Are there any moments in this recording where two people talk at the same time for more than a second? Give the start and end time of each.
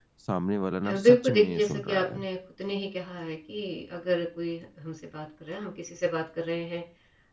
0.9-2.2

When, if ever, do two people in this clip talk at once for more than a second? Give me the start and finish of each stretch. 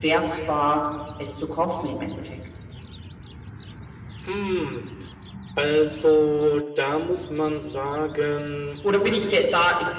none

